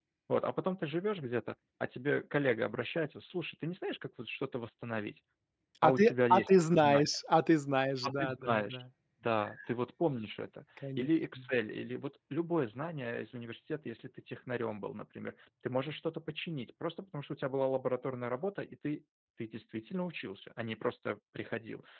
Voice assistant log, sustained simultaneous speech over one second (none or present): present